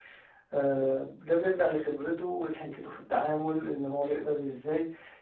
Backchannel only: Yes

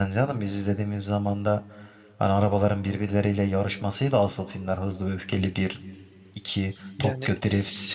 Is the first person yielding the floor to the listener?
Yes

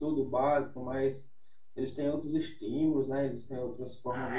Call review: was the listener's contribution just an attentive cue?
No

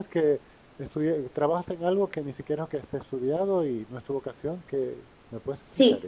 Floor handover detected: Yes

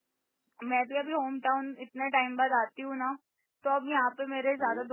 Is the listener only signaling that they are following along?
Yes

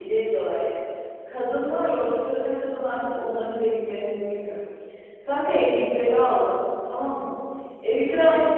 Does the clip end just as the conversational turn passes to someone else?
No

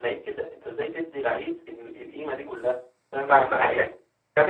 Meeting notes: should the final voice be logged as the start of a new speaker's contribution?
Yes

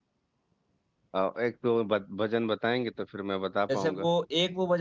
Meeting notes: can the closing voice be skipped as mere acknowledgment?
No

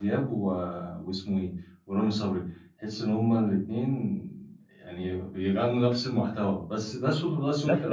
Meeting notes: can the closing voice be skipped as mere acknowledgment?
No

